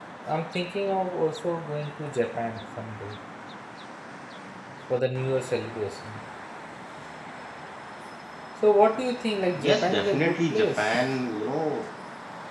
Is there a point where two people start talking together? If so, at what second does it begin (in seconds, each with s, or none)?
9.5 s